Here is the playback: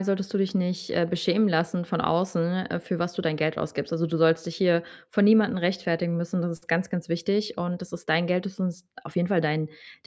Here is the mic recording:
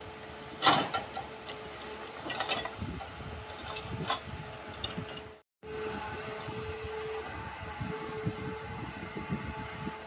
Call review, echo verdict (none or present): none